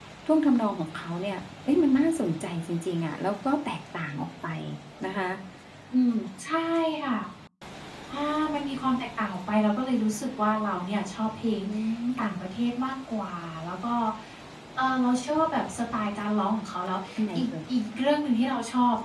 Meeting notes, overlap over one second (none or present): none